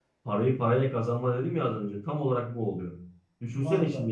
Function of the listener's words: listening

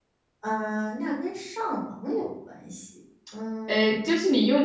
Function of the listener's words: taking over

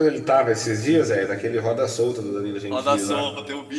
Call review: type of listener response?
taking over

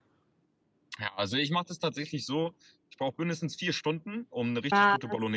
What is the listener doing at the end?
listening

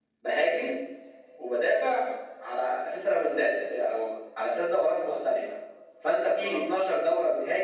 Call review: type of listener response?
listening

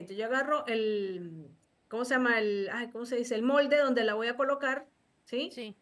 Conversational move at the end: listening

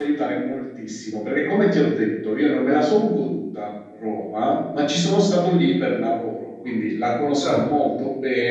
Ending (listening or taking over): listening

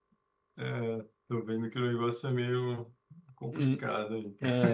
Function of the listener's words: taking over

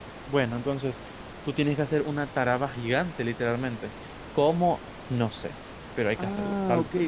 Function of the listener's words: taking over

